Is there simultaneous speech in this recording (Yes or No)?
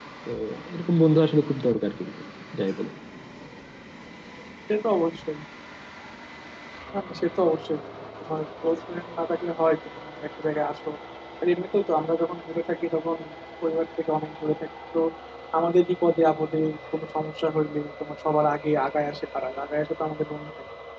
No